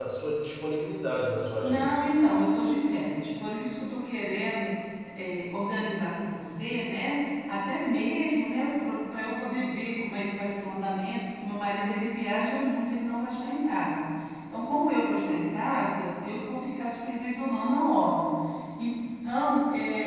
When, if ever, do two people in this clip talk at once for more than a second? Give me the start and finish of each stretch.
none

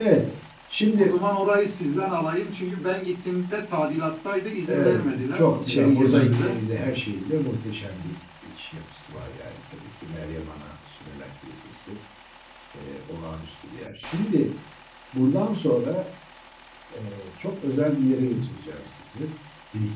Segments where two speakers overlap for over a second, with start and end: 4.7-6.6

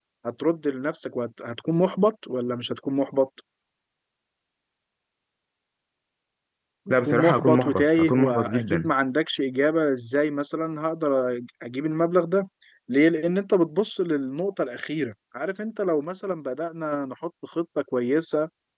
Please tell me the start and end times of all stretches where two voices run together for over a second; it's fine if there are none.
7.0-8.9

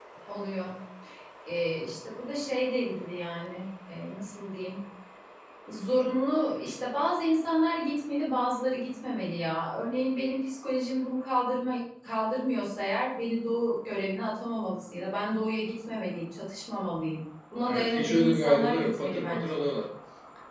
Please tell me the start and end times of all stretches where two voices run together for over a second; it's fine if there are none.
17.6-19.6

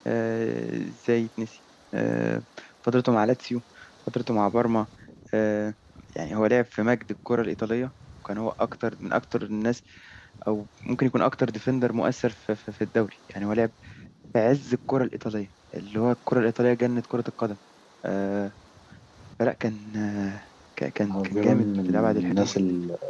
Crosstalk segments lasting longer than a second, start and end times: 21.1-22.5

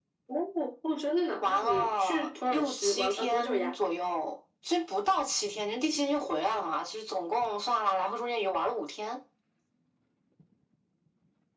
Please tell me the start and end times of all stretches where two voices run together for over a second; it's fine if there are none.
1.4-3.8

